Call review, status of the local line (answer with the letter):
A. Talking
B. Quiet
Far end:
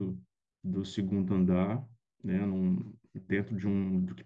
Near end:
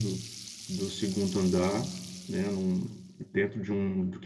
B